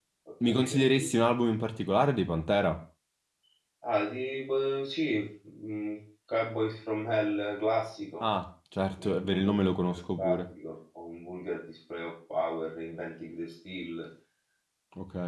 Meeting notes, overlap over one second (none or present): present